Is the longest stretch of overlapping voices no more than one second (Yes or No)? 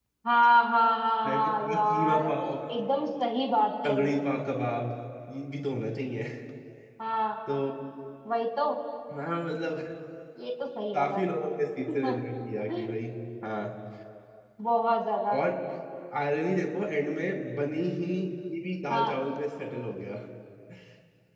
No